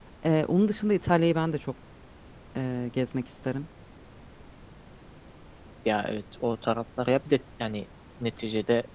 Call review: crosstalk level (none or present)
none